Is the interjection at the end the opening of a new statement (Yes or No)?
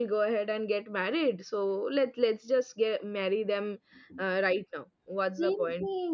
Yes